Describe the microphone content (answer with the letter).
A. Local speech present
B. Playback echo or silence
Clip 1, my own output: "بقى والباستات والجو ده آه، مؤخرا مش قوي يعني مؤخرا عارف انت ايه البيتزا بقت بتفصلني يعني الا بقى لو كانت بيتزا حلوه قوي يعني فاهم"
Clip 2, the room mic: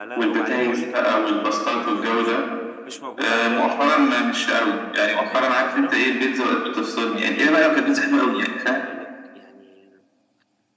A